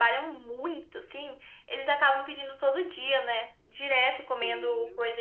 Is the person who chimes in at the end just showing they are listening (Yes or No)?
Yes